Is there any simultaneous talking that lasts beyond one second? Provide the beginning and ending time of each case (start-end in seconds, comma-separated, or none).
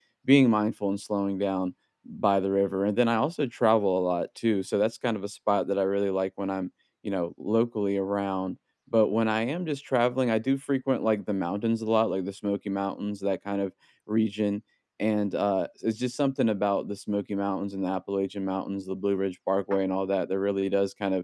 none